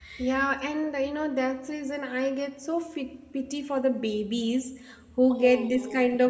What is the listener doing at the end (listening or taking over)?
listening